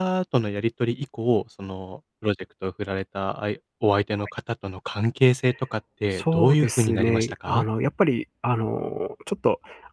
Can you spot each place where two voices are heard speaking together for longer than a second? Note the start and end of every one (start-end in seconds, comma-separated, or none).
6.2-7.6